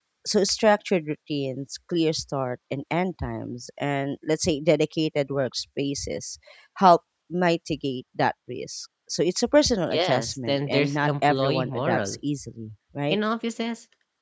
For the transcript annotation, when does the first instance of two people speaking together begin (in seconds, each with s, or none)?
9.9 s